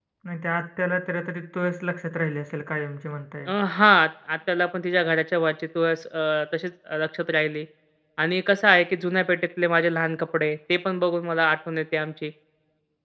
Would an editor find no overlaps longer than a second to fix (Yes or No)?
Yes